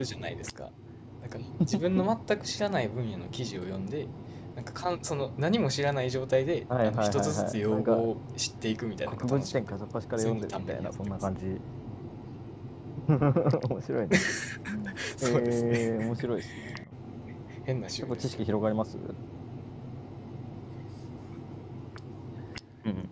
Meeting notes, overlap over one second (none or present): present